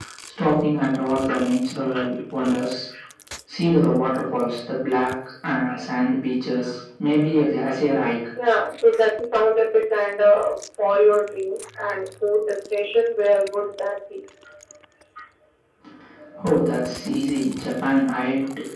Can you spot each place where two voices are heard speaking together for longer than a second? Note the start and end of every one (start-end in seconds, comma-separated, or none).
none